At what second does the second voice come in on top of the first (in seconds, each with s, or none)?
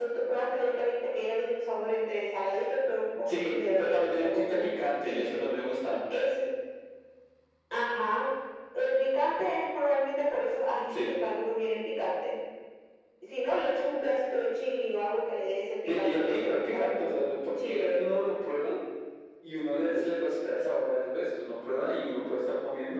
3.3 s